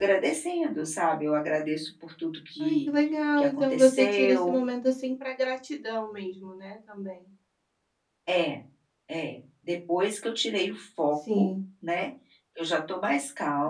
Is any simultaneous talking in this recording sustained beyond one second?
Yes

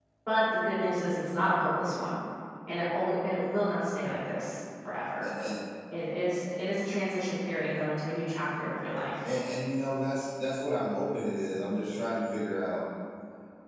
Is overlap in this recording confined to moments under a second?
Yes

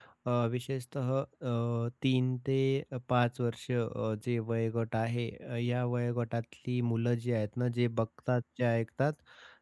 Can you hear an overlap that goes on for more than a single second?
No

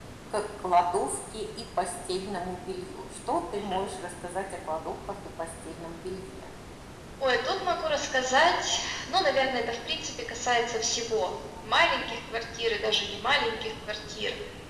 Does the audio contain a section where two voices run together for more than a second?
No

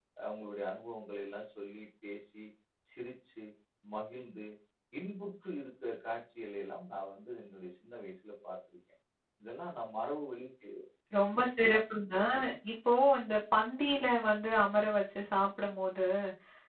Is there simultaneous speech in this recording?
No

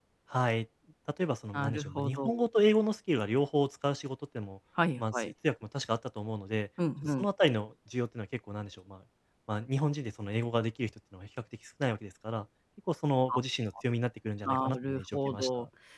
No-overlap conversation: No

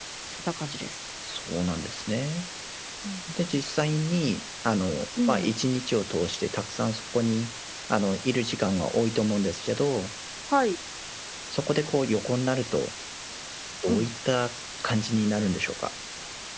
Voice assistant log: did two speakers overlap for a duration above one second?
No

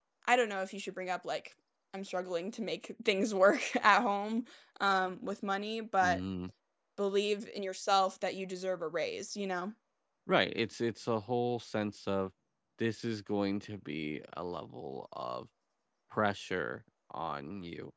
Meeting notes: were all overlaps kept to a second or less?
Yes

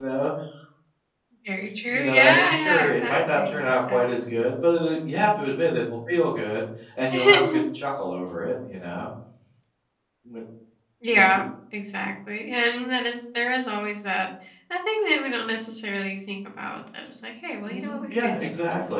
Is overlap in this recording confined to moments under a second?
No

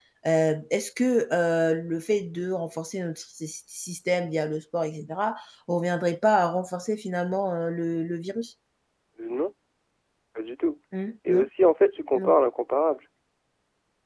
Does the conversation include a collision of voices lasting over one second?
No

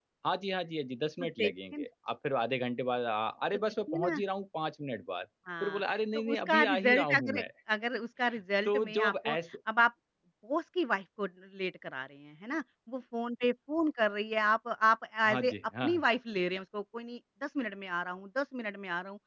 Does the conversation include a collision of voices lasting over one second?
Yes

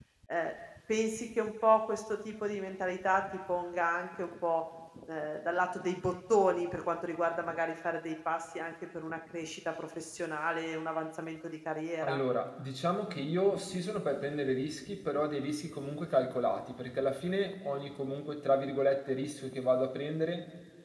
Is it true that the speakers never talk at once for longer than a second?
Yes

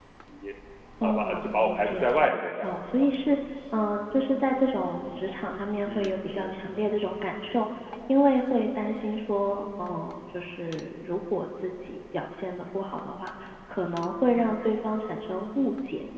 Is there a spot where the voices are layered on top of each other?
Yes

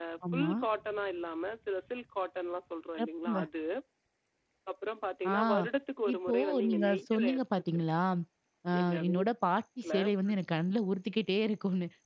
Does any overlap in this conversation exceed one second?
Yes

